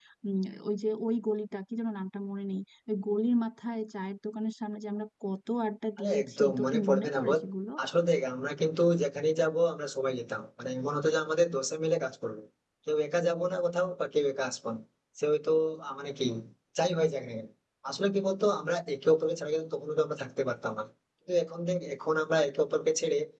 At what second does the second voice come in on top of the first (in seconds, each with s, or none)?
6.0 s